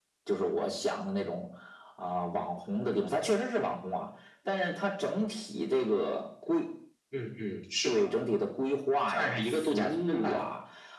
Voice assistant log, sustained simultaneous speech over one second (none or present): present